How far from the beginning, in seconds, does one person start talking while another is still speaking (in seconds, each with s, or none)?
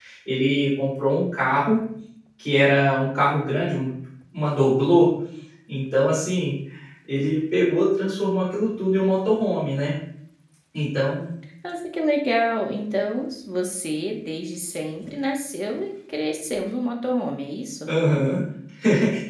none